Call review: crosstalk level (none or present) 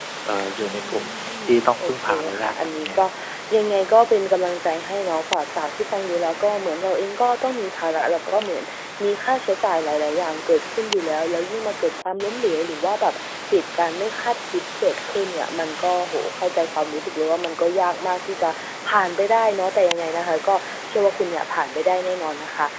present